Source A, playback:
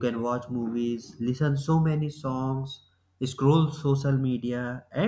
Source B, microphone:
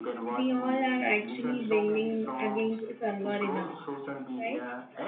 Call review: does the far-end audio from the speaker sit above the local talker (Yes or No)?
No